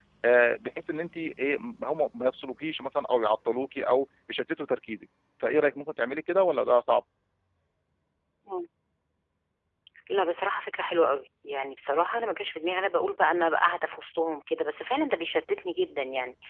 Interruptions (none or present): none